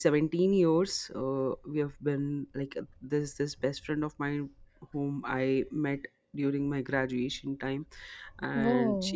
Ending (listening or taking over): listening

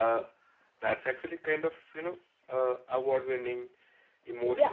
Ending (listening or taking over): taking over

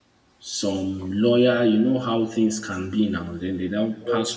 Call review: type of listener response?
listening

